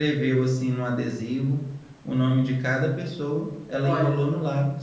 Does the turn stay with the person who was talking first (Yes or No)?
Yes